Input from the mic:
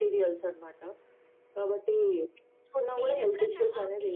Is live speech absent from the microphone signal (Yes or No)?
No